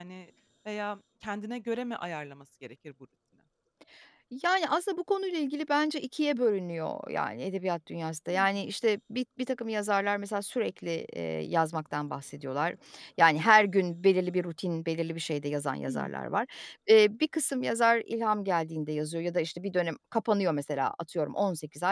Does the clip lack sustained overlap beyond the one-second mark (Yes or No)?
Yes